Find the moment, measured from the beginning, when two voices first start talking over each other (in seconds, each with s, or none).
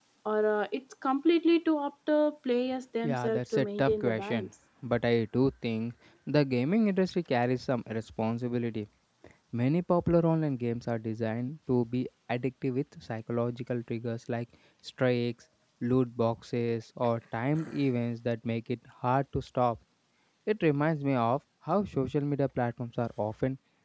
3.0 s